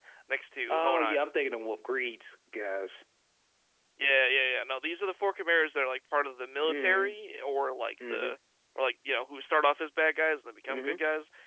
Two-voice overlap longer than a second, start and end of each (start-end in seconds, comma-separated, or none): none